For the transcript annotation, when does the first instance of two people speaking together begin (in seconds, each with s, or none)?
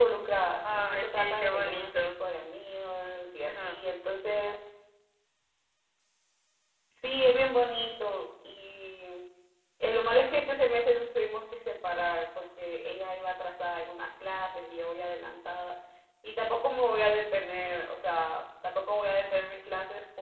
0.6 s